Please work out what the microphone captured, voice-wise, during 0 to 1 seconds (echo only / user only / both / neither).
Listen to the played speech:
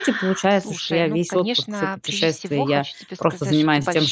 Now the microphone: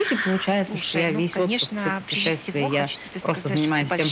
echo only